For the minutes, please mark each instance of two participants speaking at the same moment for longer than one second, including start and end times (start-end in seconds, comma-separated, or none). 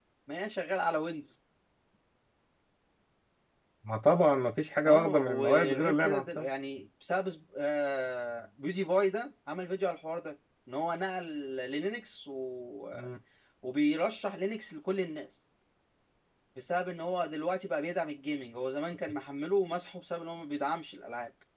4.8-6.5